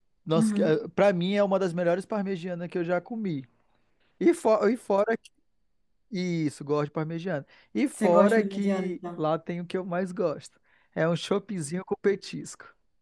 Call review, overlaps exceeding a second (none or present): present